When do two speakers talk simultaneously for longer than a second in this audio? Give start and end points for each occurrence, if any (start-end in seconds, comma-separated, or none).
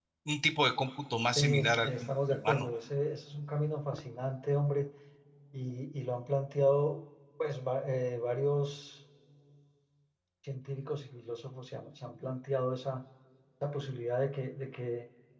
1.4-2.7